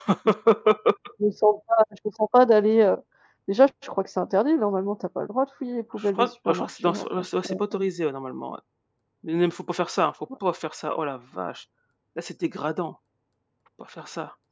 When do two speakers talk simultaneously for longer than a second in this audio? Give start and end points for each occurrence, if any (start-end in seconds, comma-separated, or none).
6.0-7.8